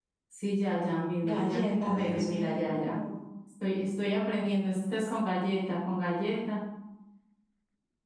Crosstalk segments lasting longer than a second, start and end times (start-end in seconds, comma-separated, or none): 1.2-3.0